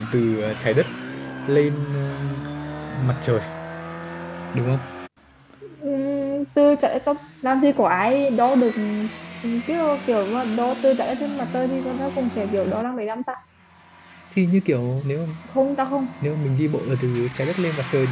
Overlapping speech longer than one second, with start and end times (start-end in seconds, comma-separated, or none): none